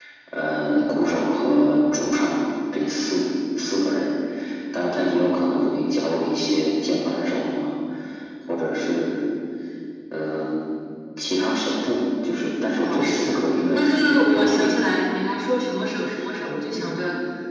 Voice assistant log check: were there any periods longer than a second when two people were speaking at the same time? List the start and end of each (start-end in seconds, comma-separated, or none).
12.8-14.7